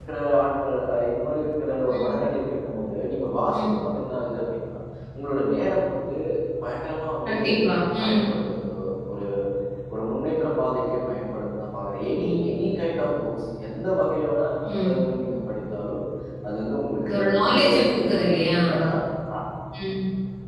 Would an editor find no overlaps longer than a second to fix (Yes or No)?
No